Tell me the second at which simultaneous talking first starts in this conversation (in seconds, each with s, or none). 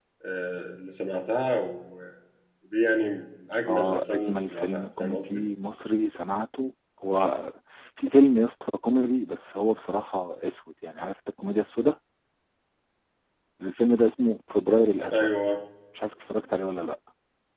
3.7 s